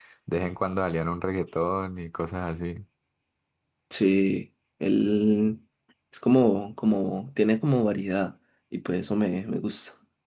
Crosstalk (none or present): none